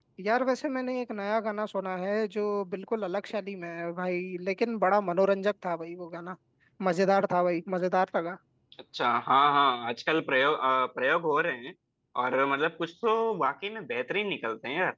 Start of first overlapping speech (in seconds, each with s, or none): none